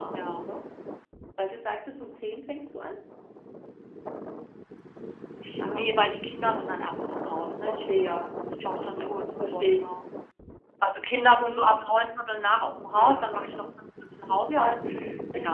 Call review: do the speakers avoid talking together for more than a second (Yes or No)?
No